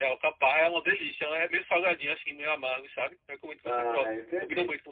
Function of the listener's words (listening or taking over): taking over